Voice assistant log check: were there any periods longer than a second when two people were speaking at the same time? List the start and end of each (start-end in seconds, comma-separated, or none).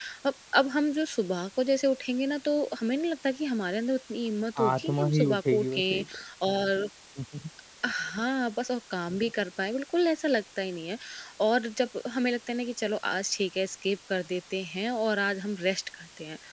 4.6-6.0